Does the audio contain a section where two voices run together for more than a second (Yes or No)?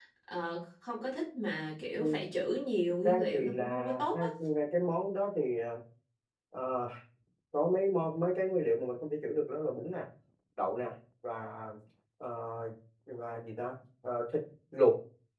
Yes